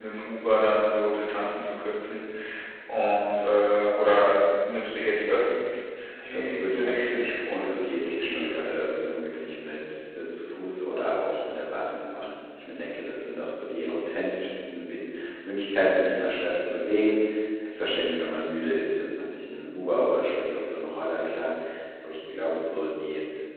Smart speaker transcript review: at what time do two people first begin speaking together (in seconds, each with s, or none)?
6.2 s